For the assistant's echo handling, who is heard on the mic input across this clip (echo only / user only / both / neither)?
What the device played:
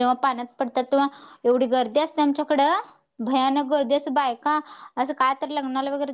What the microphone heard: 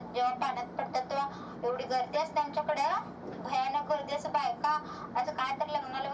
echo only